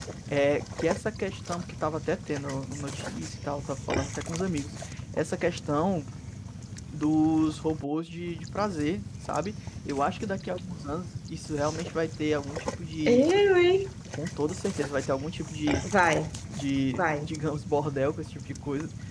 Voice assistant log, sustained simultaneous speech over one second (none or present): none